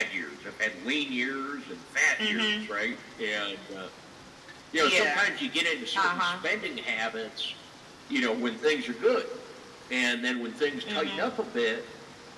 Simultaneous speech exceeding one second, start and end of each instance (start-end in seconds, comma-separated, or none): none